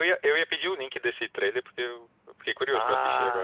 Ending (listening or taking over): taking over